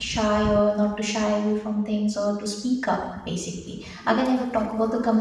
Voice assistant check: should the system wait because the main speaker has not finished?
Yes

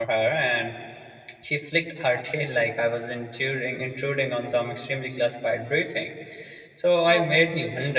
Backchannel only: Yes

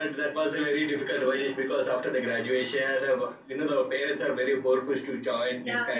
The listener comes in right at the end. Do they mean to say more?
No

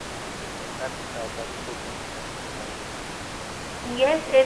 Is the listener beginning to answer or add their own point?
Yes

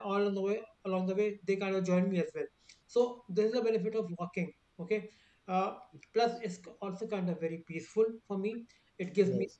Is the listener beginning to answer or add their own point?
No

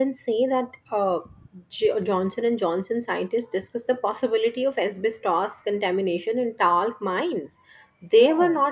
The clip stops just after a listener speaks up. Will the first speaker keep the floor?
Yes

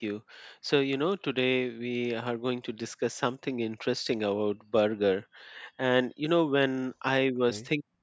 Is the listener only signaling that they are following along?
Yes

